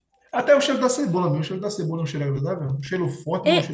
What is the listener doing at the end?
taking over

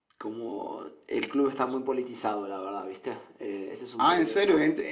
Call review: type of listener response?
taking over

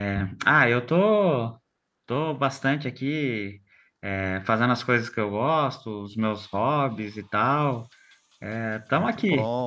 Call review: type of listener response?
taking over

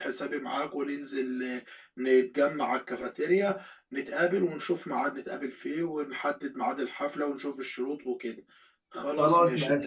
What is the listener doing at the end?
taking over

